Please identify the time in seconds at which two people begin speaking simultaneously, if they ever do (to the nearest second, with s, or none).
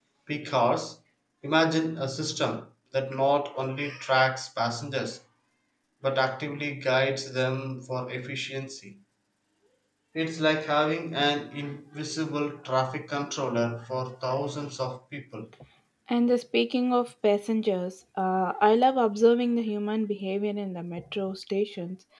none